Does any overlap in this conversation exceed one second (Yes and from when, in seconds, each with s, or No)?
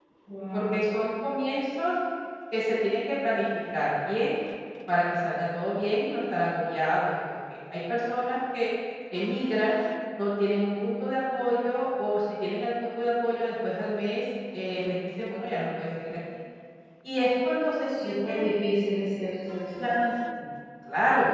No